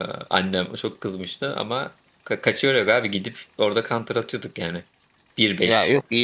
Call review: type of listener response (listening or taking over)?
taking over